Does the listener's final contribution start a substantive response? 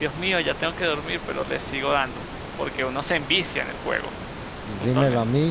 Yes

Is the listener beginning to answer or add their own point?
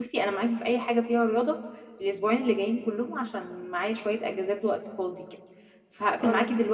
No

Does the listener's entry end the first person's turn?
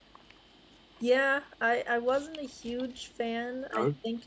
No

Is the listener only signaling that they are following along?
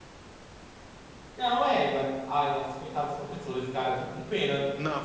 No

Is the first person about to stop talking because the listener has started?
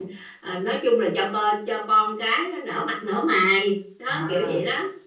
Yes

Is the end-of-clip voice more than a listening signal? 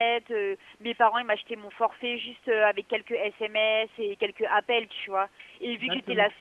No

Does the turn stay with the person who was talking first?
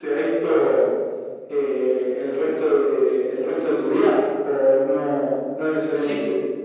No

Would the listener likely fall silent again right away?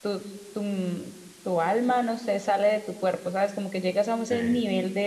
Yes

